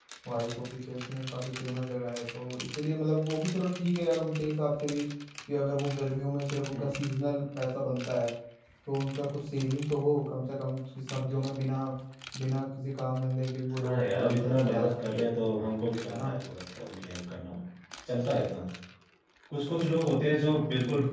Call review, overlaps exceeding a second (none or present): present